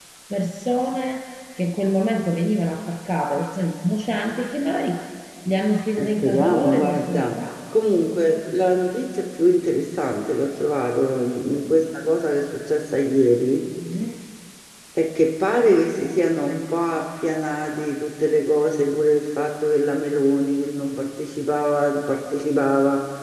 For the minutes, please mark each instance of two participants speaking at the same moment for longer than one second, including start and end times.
6.0-7.4

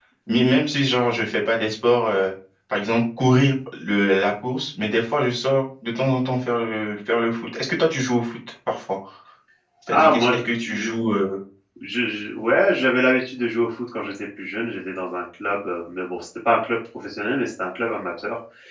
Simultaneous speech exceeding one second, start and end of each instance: none

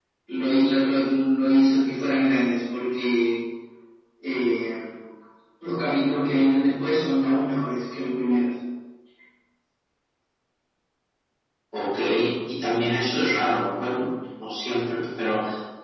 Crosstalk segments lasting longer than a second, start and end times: none

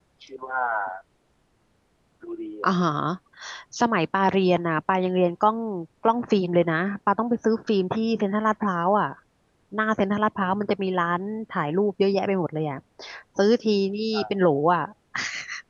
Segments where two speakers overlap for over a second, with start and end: none

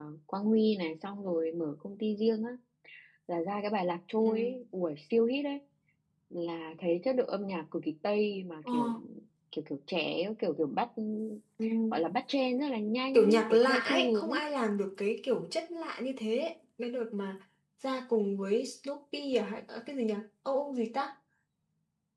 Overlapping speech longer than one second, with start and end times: 13.1-14.4

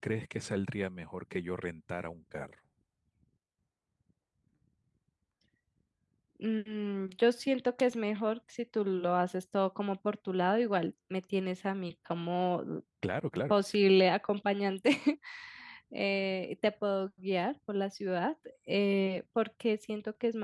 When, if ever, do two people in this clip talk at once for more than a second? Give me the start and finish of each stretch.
none

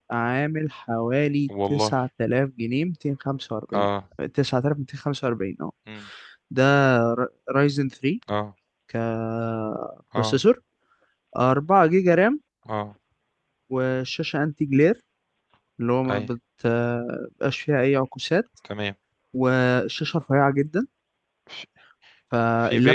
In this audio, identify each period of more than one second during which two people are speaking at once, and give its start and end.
none

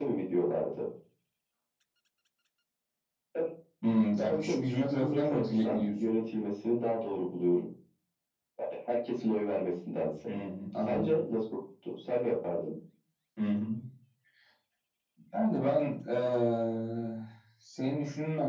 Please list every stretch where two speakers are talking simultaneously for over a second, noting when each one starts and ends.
4.3-6.1

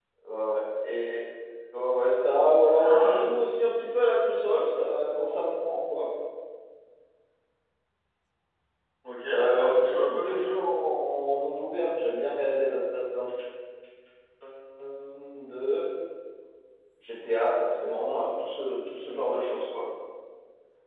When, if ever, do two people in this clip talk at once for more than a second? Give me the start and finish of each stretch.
9.3-10.6

